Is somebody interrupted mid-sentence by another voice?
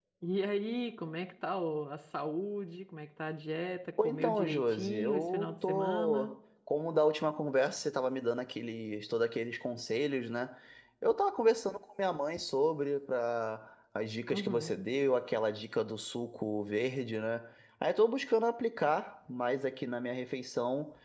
Yes, from 4.0 s

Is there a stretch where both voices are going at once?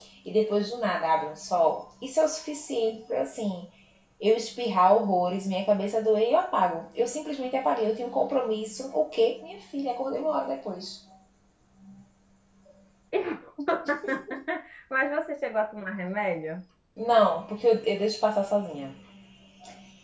No

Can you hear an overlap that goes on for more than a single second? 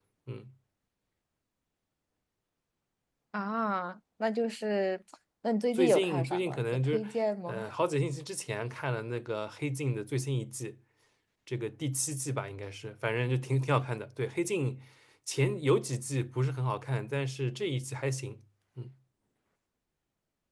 Yes, from 5.7 s

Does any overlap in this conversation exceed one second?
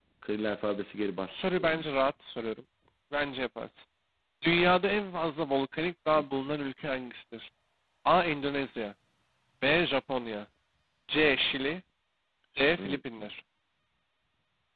No

